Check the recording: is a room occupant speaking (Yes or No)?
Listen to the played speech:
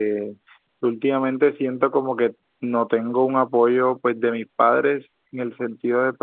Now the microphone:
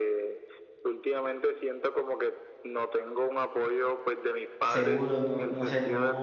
Yes